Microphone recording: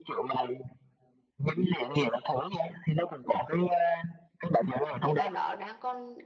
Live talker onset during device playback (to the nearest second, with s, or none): 5 s